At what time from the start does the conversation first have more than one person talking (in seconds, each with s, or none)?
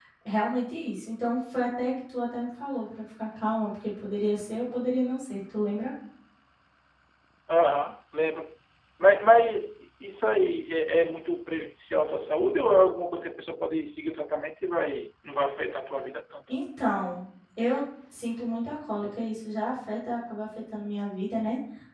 none